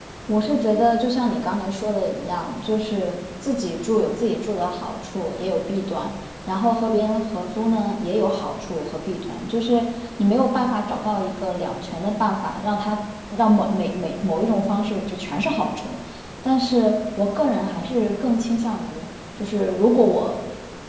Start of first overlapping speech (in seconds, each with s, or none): none